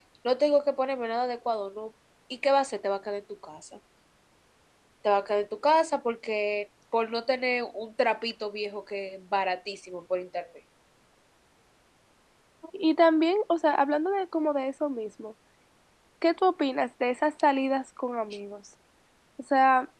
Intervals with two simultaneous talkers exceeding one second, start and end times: none

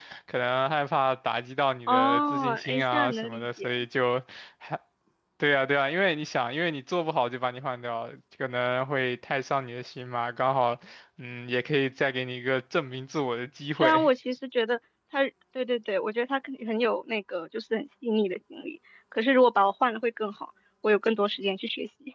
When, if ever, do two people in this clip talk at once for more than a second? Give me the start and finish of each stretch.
1.9-3.7

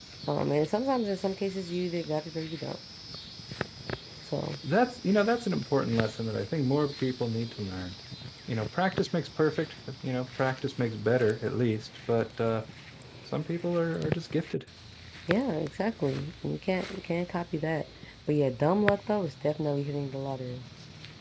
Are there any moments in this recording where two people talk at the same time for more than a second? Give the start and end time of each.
none

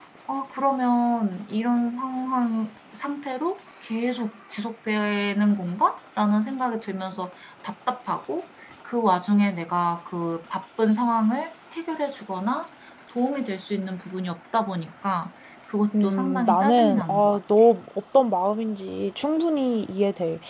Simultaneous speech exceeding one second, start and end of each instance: 16.0-17.4

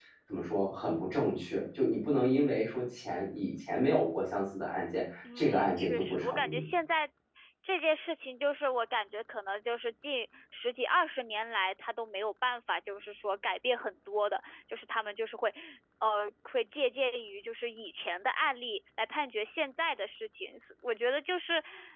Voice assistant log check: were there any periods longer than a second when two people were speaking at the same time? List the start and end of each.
5.3-6.6

